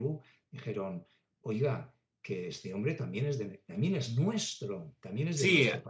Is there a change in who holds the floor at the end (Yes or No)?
Yes